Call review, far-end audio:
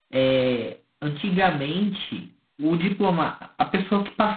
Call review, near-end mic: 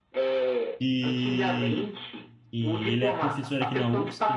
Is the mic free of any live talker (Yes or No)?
No